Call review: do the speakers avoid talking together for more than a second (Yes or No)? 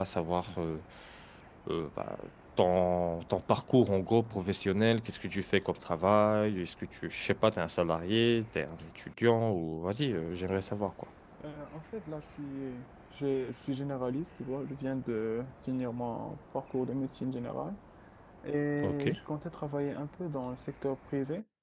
Yes